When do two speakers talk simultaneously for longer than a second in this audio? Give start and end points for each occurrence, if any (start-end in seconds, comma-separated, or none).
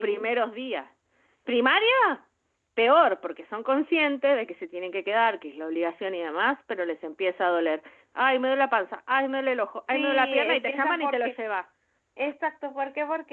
9.9-11.4